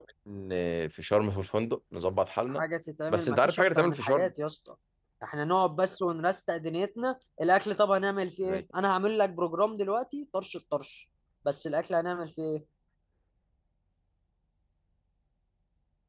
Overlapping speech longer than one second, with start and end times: 3.1-4.3

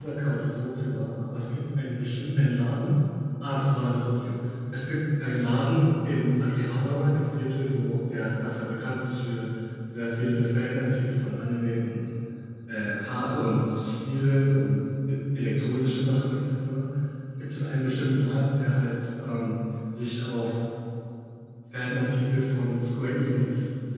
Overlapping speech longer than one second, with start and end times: none

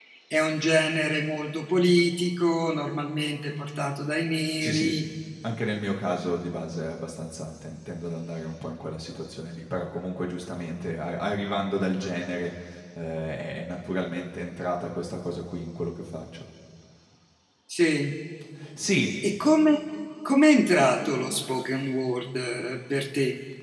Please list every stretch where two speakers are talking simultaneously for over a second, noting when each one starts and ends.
none

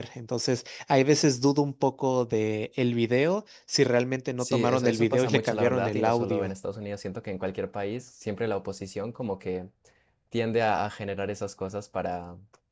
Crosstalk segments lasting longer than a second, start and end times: 4.4-6.5

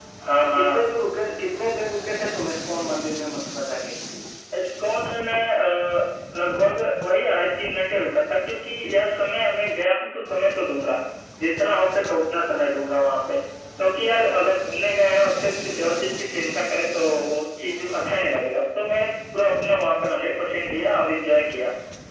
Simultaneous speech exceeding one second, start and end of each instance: none

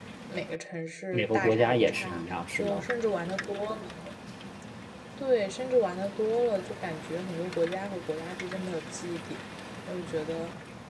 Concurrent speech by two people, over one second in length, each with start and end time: 1.1-2.8

